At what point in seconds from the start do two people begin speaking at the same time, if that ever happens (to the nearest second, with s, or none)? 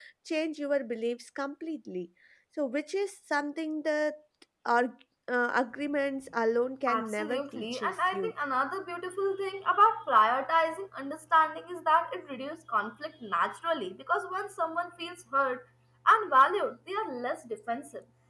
7 s